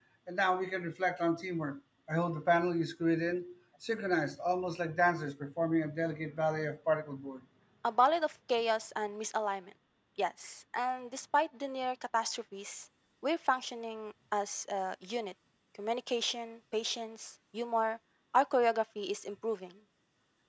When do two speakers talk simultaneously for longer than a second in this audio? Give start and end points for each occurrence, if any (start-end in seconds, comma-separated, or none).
none